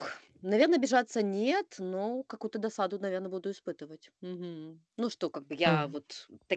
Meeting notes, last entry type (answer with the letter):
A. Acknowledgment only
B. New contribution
A